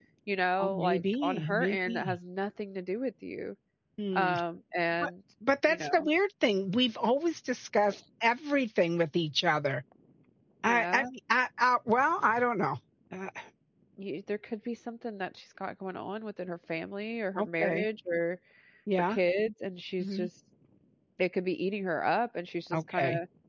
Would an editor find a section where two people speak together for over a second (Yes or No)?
Yes